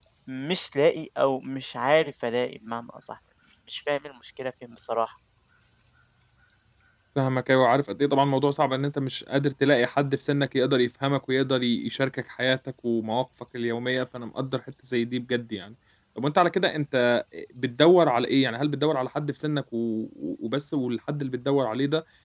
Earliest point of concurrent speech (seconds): none

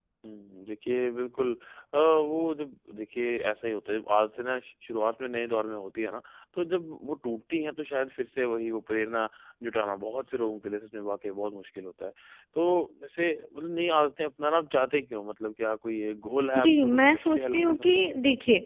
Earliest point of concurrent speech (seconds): 17 s

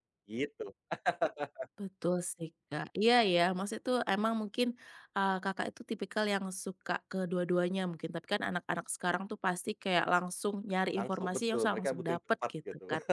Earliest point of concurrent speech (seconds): 11 s

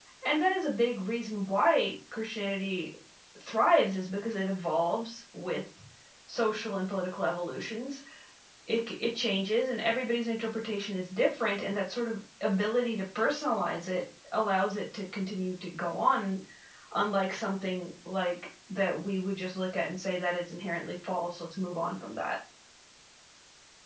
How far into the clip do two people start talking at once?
none

